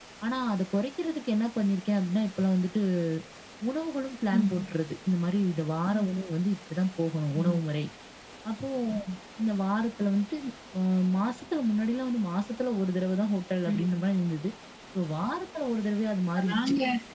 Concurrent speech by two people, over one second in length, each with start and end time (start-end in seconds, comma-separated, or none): none